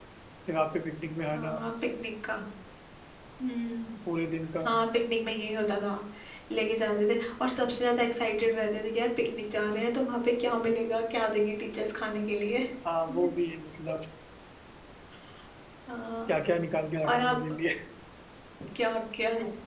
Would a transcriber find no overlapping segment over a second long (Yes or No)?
Yes